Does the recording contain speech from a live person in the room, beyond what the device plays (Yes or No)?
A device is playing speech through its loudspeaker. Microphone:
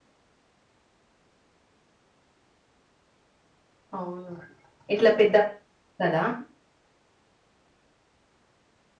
Yes